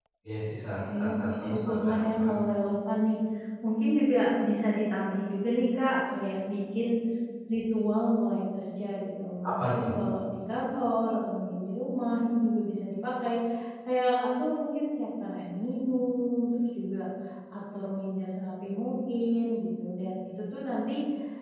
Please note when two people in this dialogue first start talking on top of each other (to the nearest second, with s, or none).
1 s